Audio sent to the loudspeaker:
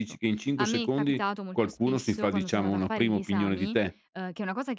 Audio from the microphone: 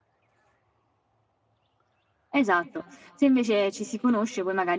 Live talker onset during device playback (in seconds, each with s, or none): 2.3 s